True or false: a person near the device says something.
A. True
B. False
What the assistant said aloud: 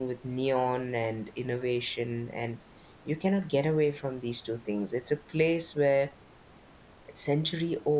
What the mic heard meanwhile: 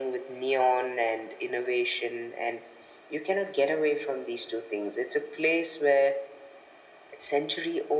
B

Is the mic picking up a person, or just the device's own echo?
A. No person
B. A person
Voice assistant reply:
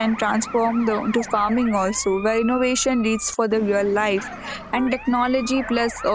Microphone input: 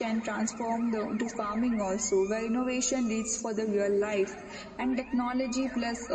A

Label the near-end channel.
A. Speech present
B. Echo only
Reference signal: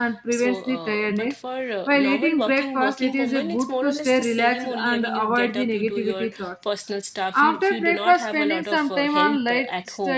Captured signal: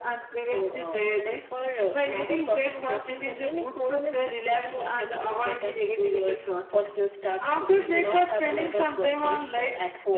B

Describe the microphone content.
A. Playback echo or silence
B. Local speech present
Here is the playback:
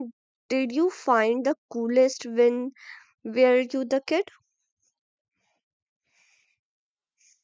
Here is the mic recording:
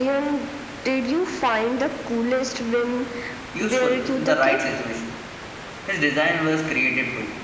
B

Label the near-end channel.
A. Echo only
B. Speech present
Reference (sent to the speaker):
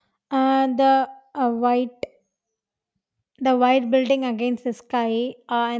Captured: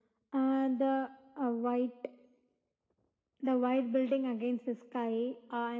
A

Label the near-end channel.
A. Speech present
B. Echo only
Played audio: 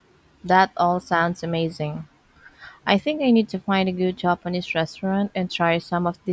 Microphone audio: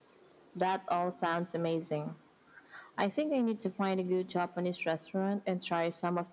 B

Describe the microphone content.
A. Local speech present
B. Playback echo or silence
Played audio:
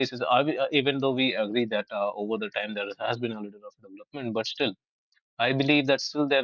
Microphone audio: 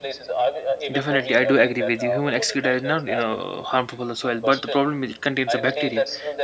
A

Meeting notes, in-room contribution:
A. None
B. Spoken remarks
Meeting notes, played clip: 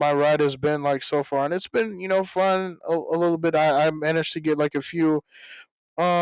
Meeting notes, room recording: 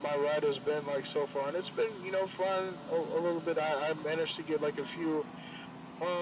A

